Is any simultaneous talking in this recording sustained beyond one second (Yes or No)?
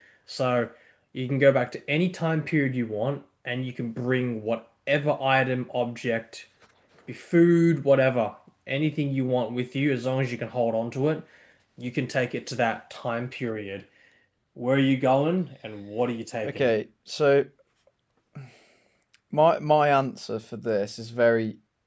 No